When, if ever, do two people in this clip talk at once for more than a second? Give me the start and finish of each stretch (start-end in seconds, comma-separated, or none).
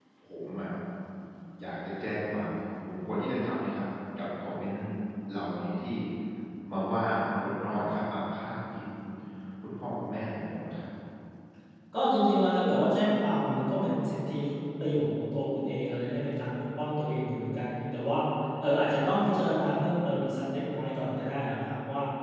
none